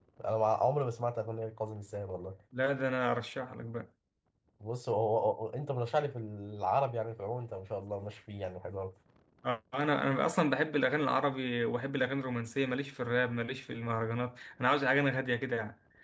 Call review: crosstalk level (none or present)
none